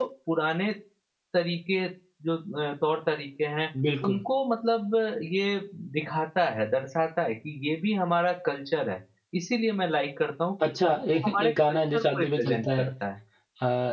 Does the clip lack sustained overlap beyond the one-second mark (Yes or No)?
No